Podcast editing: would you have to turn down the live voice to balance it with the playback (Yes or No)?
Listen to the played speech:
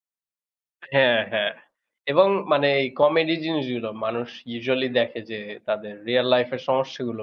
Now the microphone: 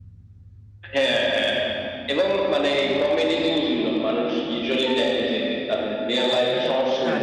No